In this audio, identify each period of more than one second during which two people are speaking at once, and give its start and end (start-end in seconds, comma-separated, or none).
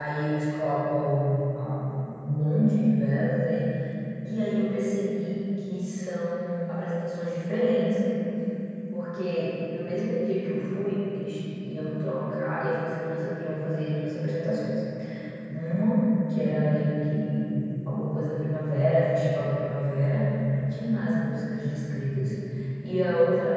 none